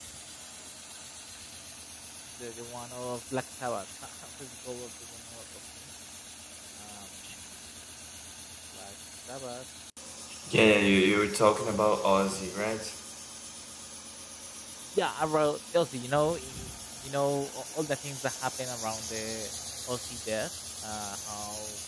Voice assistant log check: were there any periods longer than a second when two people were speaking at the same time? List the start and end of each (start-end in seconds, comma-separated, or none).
none